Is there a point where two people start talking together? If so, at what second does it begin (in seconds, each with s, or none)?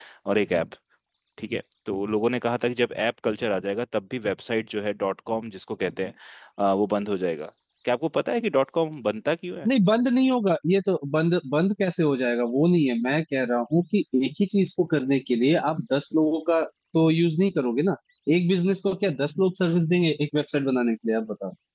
none